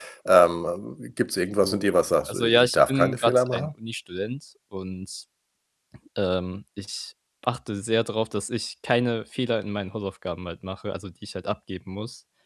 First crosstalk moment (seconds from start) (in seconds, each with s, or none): 1.6 s